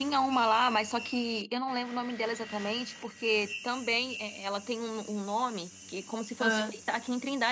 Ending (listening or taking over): listening